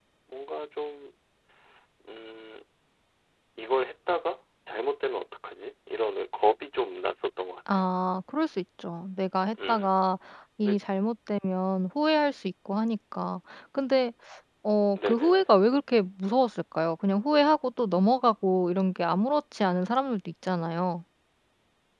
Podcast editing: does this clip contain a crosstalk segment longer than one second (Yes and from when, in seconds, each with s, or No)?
No